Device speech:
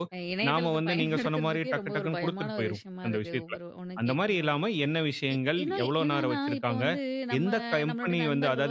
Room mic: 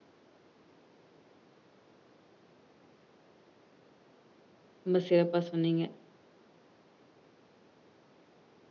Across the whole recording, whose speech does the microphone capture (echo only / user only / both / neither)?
user only